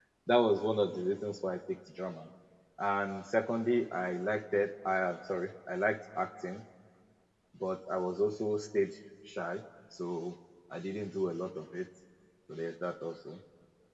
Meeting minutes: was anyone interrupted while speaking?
No

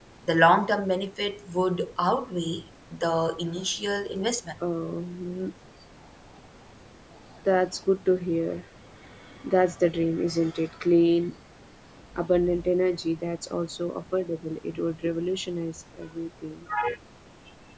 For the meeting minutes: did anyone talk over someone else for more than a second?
No

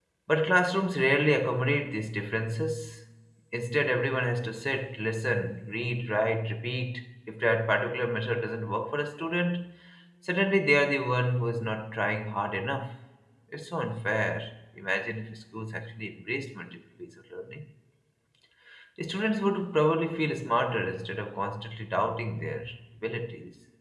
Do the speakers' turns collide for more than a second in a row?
No

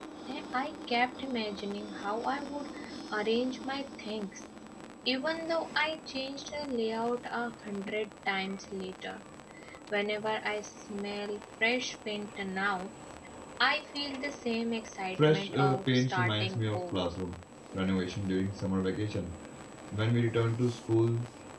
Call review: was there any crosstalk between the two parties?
Yes, from 15.2 s

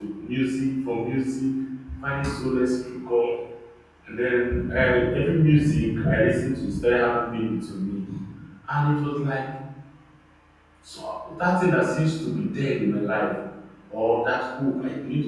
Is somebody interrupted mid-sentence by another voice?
No

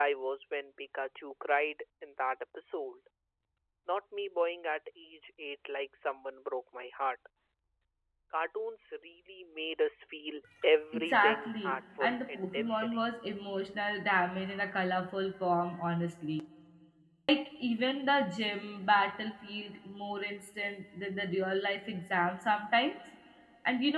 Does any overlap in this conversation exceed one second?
Yes, from 10.9 s

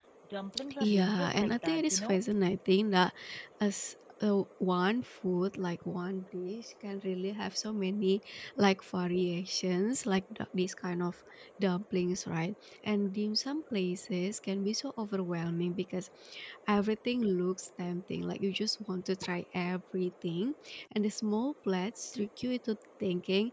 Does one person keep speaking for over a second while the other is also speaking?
Yes, from 0.8 s

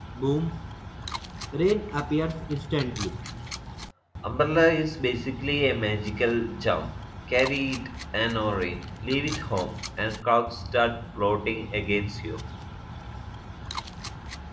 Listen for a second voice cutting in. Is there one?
No

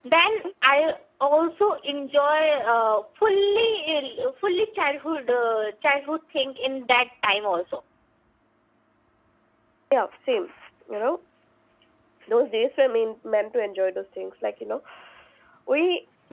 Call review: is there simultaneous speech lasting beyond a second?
No

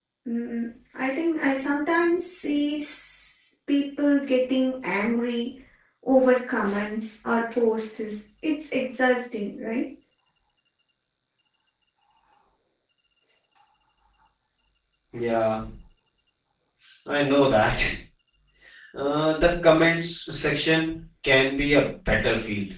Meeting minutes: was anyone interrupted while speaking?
No

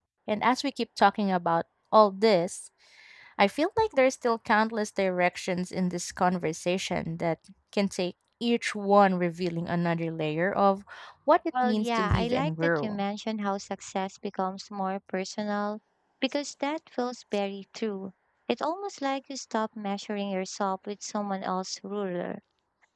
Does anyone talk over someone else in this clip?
Yes, from 11.6 s

